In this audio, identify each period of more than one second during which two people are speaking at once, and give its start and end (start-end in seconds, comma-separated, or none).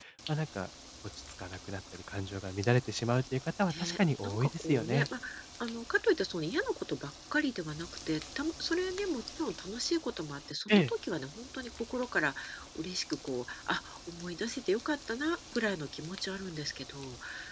3.7-5.1